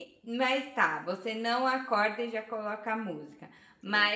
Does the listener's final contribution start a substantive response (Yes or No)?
No